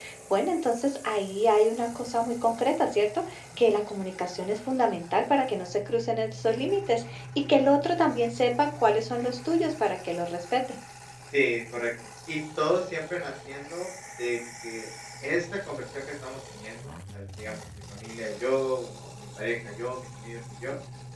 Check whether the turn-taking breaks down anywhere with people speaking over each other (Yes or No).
No